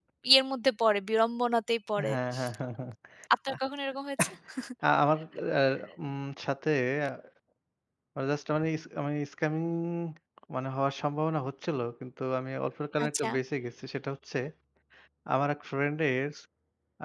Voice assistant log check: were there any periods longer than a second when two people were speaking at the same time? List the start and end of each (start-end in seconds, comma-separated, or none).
none